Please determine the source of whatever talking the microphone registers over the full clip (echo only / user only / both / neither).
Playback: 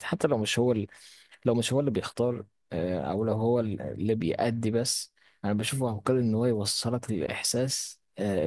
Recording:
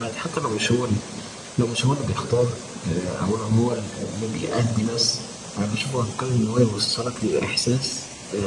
echo only